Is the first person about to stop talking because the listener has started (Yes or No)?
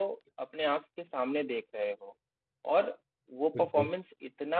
No